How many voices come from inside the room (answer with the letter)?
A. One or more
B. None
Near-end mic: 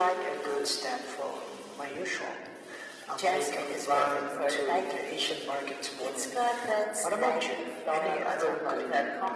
B